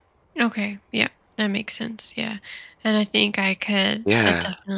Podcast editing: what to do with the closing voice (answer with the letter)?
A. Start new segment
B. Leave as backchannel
B